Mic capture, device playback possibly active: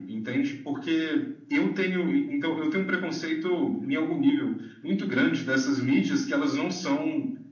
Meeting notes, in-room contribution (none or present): none